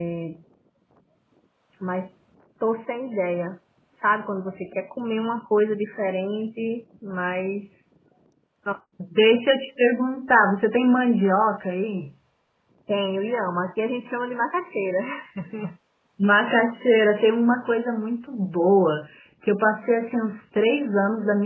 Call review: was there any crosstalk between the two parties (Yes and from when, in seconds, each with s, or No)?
No